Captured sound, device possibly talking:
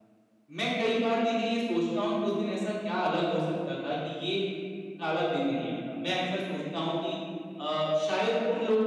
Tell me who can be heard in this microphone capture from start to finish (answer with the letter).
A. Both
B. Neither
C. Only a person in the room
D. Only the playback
D